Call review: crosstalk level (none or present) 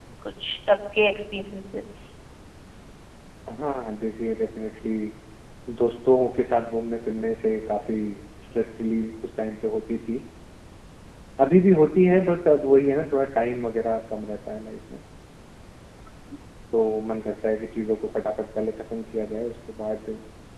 none